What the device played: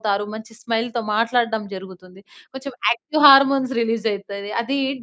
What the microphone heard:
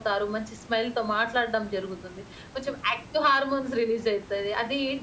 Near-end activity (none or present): none